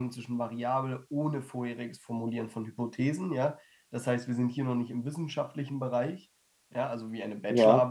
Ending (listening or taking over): listening